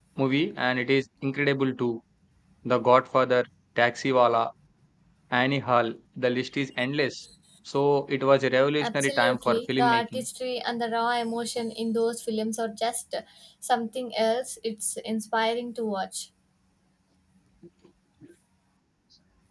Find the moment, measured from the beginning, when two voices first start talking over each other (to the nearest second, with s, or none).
9 s